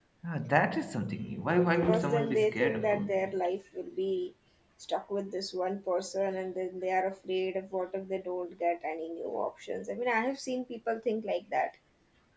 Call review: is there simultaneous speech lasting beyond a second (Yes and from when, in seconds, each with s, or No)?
Yes, from 1.6 s